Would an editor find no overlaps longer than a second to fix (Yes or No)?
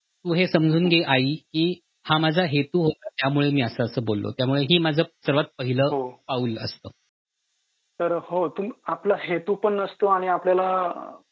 Yes